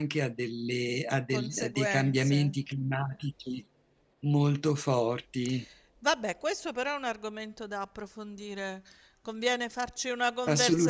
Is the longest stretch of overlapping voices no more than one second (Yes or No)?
No